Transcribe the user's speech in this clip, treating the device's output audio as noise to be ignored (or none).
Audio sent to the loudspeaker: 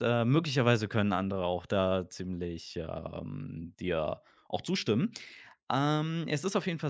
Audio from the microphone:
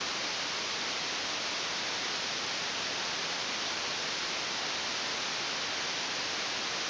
none